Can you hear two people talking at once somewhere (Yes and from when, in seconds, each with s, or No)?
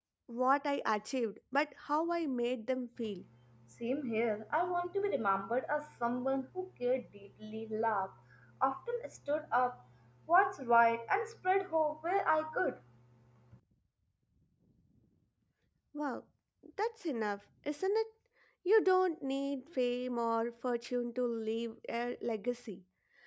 No